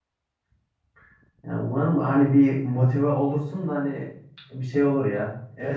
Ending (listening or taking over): taking over